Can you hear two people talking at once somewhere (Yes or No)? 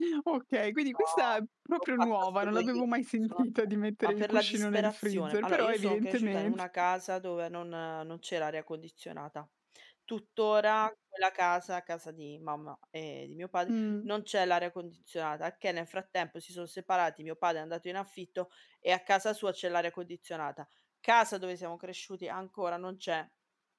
Yes